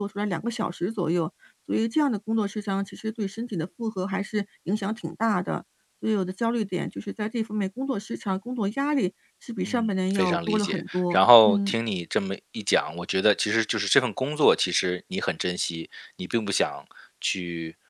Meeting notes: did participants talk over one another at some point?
Yes, from 9.6 s

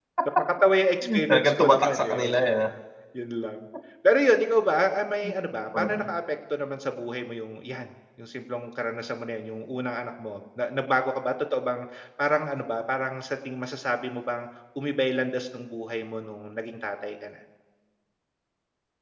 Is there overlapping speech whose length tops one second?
Yes, from 1.3 s

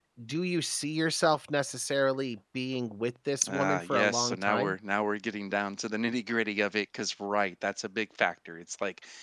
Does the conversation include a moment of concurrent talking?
Yes, from 3.4 s

